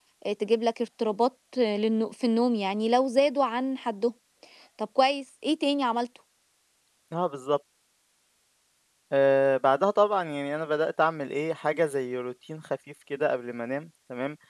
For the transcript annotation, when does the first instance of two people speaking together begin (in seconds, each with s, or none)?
none